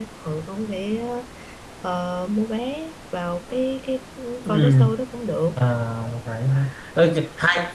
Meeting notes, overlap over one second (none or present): none